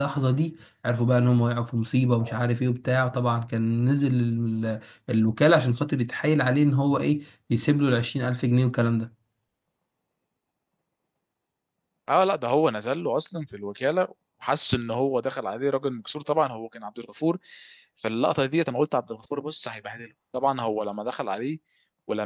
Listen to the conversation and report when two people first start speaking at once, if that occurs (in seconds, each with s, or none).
none